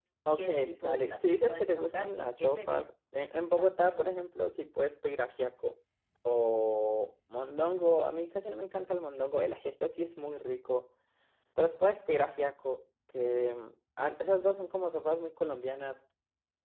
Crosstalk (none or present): present